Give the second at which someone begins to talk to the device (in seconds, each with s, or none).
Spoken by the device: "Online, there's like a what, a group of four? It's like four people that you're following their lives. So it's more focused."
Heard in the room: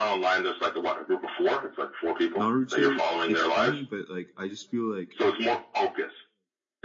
2.4 s